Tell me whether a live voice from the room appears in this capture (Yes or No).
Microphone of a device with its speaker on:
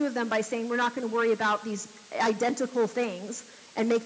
No